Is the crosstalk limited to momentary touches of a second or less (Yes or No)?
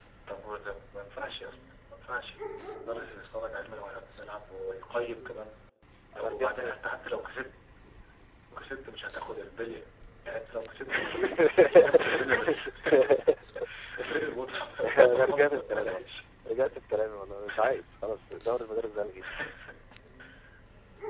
No